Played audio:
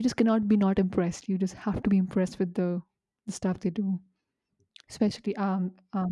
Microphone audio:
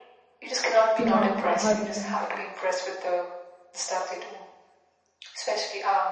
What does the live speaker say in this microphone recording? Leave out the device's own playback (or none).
yeah i heard of him